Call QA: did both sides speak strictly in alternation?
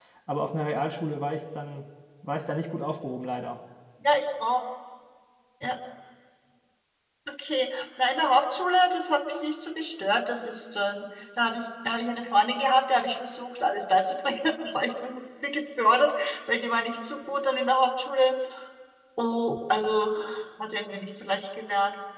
Yes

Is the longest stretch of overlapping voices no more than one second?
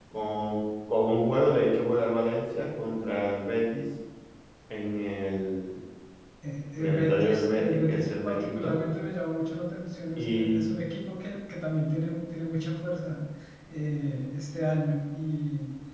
No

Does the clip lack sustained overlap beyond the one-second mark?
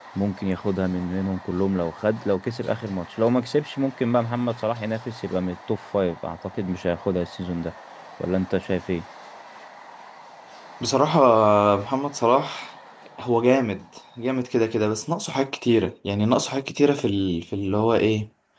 Yes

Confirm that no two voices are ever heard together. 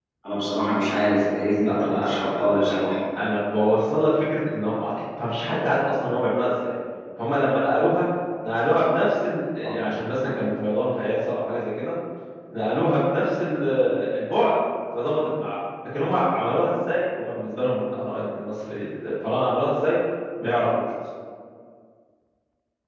No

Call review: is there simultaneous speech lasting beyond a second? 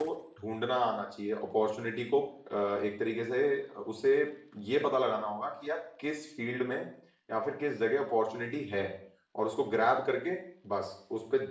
No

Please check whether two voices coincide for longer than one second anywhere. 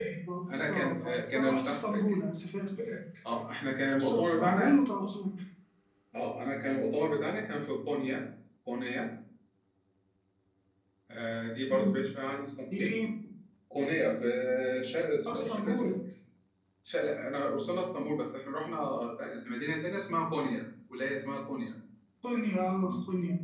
Yes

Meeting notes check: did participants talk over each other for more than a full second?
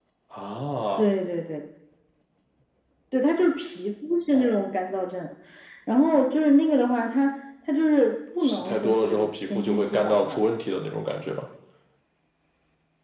Yes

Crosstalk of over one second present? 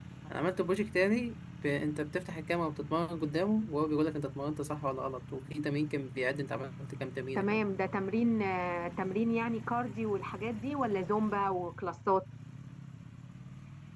No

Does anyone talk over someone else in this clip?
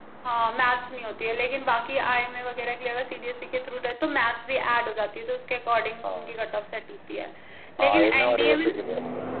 Yes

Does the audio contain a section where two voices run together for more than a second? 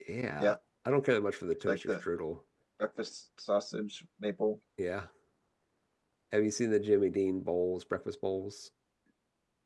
No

